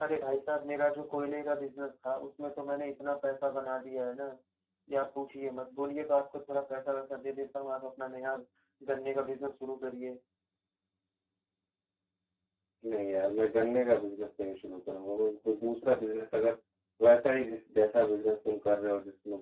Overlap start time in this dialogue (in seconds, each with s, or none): none